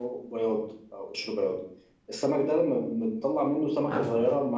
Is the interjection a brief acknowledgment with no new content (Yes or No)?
Yes